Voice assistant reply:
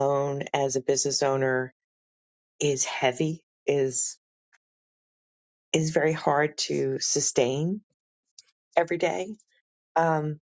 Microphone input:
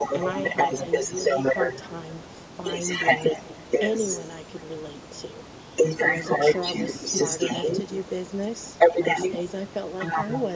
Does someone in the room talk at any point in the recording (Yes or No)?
Yes